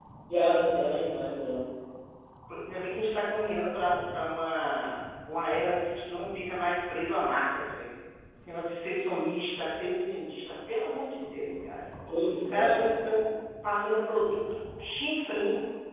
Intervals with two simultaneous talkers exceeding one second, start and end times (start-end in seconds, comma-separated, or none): none